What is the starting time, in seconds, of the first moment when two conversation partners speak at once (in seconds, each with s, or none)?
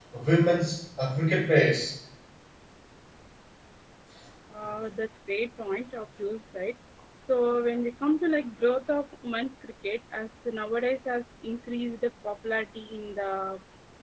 none